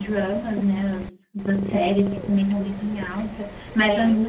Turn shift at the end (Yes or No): No